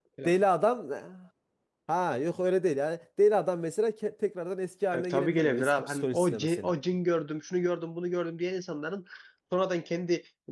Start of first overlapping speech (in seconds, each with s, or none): 4.9 s